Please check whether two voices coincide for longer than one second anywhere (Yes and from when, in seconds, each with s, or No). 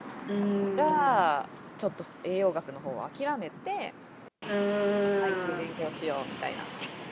No